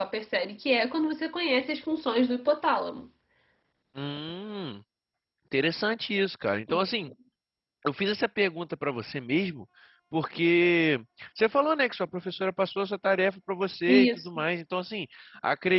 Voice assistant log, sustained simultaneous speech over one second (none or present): none